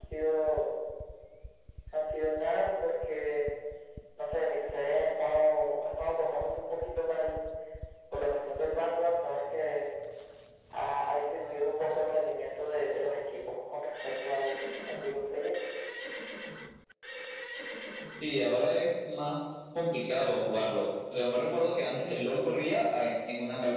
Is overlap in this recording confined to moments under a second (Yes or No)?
Yes